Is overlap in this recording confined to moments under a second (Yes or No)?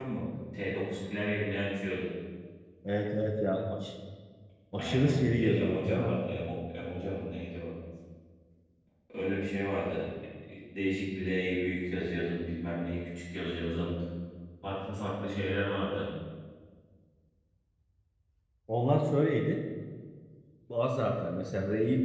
No